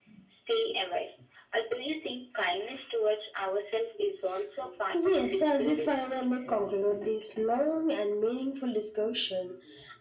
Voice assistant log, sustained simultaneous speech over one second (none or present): present